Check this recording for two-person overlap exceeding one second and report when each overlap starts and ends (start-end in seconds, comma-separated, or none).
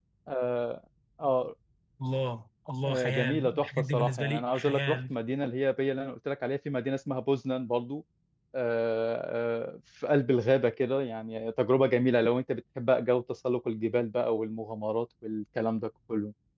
2.8-5.1